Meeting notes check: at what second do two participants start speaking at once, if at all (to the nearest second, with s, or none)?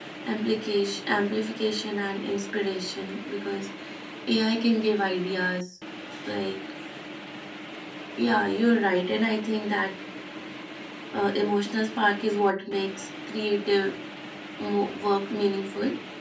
none